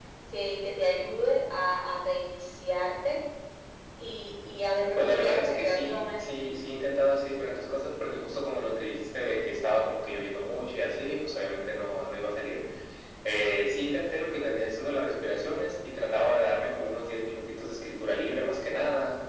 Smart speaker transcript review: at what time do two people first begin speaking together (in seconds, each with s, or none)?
5.0 s